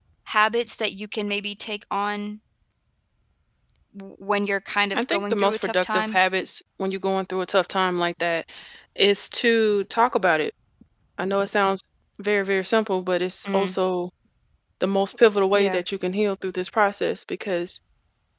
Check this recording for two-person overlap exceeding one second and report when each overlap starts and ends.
5.0-6.2

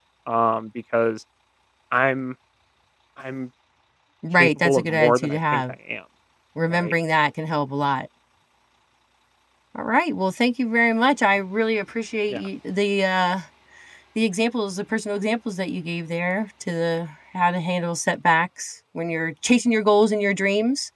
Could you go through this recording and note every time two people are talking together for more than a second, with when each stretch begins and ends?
4.4-5.6

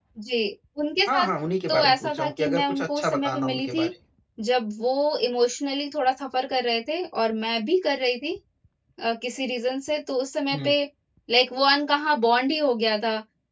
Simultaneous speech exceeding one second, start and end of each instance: 1.7-3.9

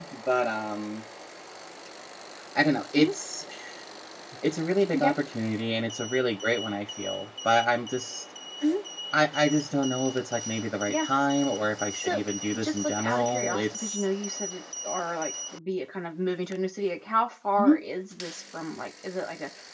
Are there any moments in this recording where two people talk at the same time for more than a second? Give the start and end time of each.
12.0-14.0

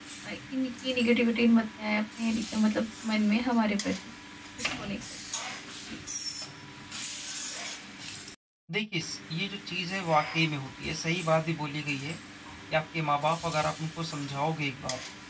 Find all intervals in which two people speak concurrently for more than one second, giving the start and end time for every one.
none

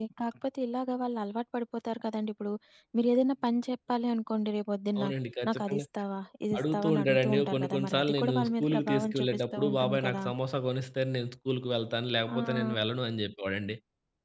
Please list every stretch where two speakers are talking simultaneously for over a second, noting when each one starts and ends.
6.6-10.2

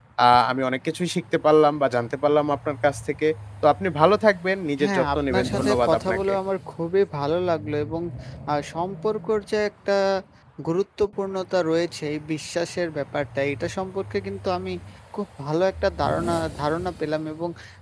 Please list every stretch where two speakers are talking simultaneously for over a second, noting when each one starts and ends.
4.8-6.3

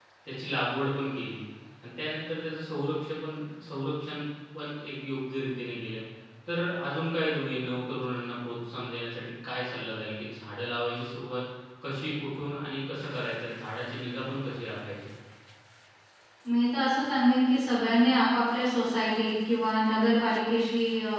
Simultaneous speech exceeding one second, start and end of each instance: none

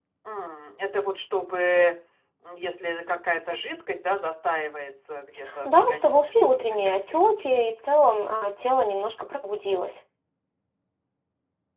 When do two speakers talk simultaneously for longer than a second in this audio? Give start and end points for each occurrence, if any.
5.7-7.6

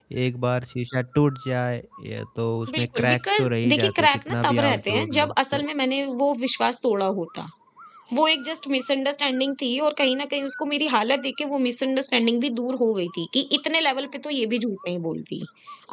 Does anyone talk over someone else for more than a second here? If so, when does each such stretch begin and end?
2.8-5.7

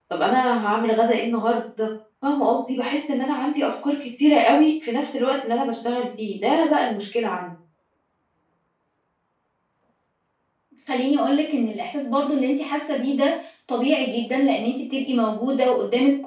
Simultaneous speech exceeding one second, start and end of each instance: none

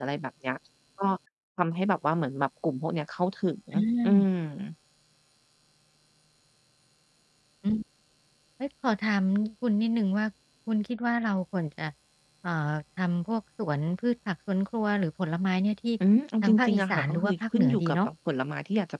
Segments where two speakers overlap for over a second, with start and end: 16.4-18.1

